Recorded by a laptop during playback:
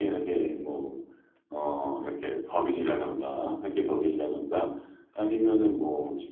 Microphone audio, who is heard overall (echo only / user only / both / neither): echo only